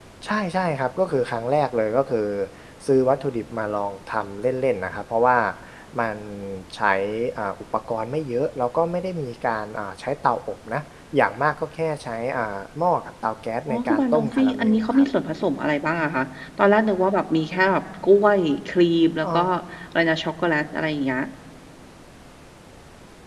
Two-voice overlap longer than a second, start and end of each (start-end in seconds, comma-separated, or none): 13.7-15.0